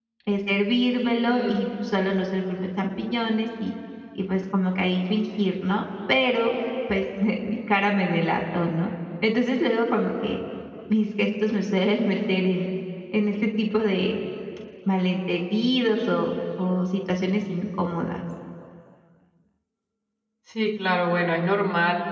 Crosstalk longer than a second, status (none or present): none